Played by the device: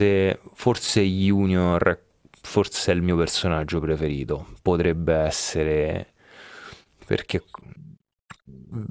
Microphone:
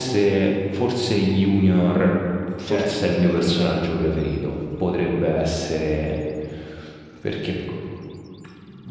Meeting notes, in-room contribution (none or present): present